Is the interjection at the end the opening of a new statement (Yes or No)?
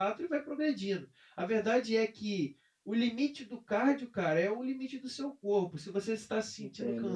No